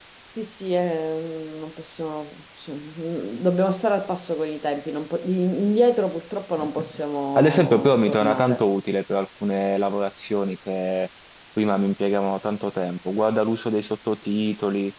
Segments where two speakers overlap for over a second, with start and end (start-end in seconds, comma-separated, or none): 7.4-8.7